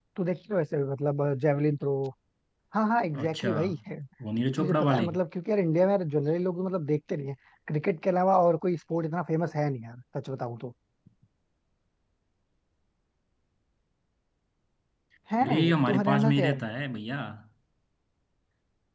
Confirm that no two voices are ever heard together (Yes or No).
No